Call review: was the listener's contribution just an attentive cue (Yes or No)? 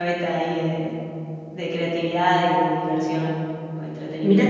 No